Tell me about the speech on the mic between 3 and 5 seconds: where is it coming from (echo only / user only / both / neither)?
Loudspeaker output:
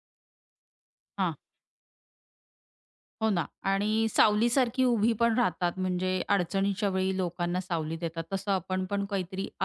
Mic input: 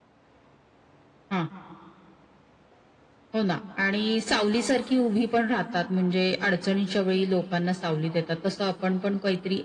echo only